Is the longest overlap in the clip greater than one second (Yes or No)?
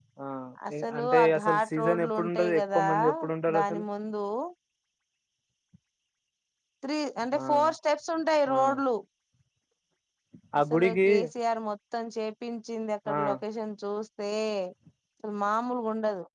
Yes